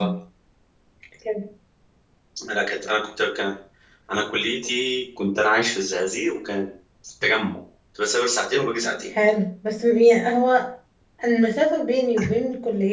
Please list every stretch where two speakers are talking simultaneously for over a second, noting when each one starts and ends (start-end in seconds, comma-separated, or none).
none